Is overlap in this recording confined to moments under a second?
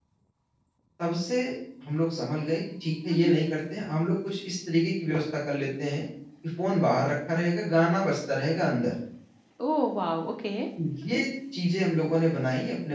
Yes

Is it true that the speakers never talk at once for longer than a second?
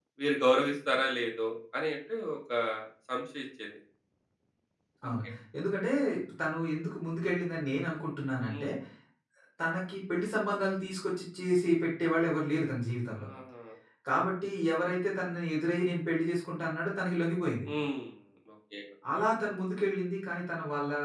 Yes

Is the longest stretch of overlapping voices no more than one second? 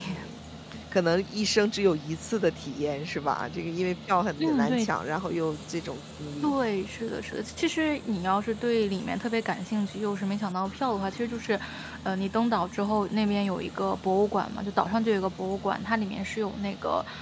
Yes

